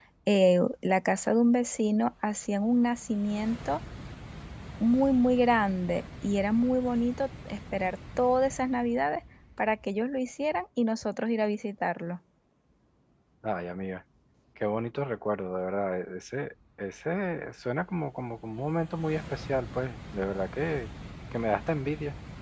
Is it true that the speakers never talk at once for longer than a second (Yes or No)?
Yes